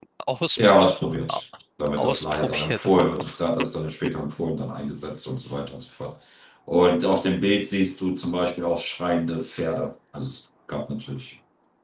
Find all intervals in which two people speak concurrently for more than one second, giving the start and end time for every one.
2.0-3.3

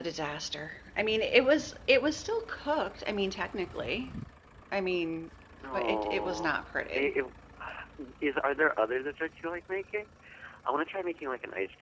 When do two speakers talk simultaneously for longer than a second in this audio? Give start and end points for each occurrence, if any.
5.7-7.1

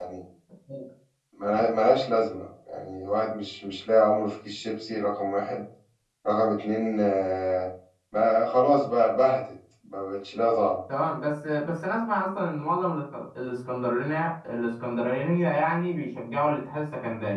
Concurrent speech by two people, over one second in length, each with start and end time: none

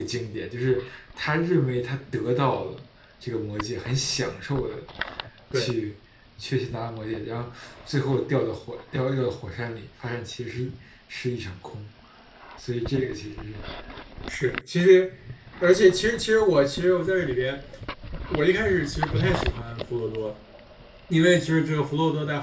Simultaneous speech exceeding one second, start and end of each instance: none

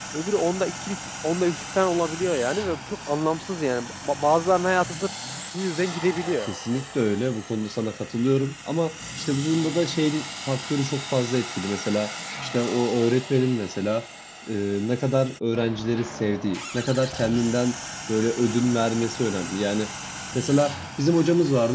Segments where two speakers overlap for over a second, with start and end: none

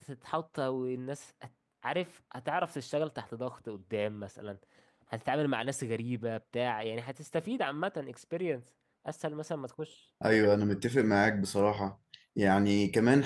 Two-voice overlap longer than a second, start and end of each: none

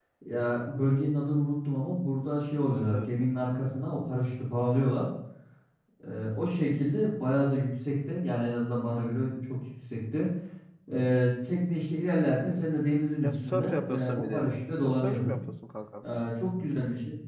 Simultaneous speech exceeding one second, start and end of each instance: 13.2-15.4

